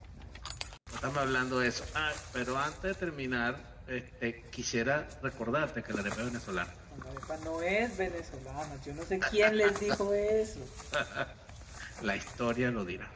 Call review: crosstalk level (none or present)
none